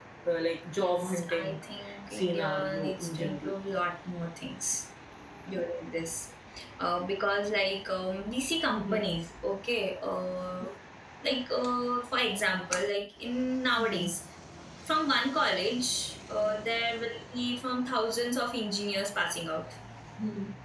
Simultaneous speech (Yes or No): Yes